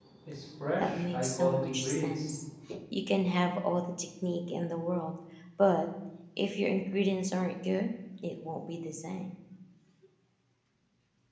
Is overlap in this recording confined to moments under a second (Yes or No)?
No